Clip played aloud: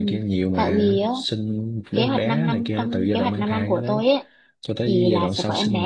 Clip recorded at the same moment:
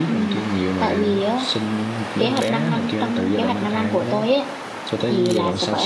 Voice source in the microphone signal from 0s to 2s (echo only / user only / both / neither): echo only